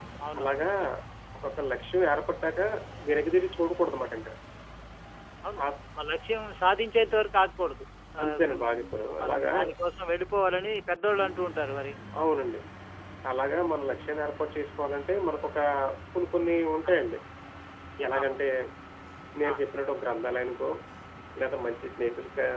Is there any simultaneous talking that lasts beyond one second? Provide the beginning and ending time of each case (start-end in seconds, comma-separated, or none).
8.2-9.5